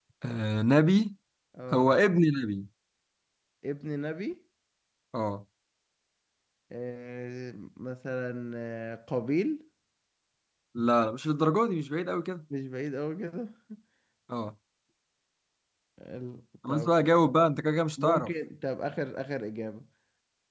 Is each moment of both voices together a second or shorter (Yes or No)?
Yes